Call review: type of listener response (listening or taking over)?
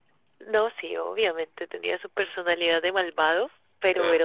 listening